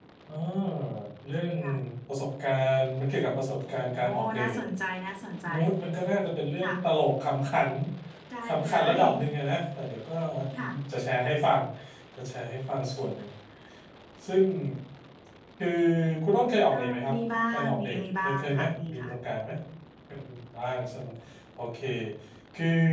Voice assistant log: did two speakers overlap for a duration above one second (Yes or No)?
Yes